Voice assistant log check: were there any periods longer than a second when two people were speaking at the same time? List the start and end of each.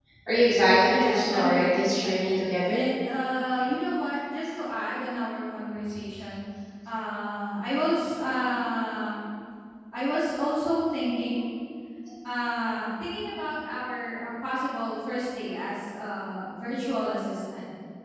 0.9-2.8

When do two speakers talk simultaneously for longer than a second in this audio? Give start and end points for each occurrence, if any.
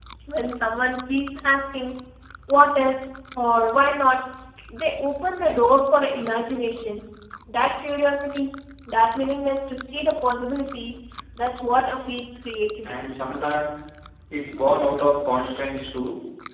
none

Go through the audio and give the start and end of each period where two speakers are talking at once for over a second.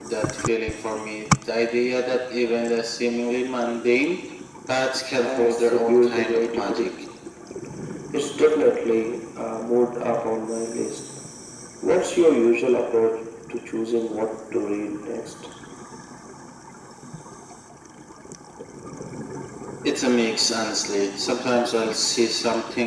5.2-6.9

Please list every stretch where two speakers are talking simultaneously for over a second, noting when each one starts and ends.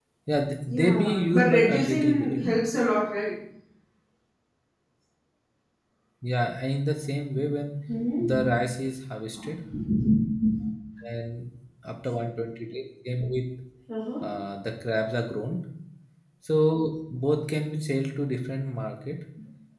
0.7-2.6

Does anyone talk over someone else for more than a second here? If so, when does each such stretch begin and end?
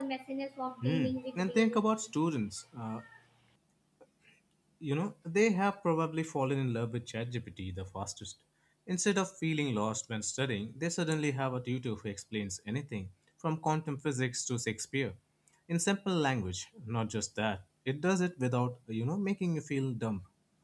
0.8-2.1

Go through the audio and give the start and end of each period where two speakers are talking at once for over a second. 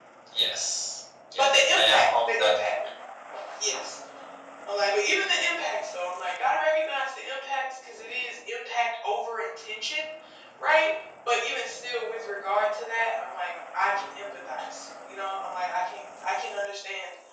1.3-2.5

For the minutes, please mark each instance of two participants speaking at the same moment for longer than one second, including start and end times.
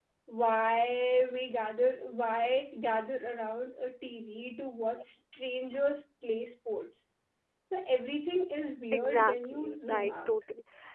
8.9-10.4

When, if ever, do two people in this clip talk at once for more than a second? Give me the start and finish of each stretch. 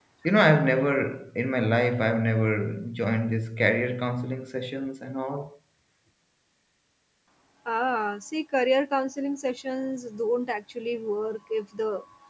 none

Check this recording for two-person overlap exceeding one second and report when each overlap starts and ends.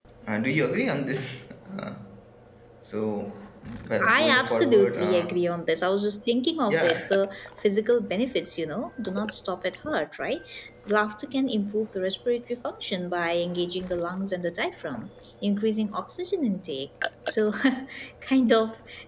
4.1-5.4

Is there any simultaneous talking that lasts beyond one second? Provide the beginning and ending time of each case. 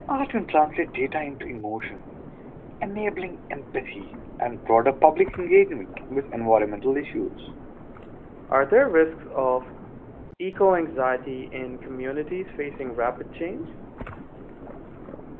none

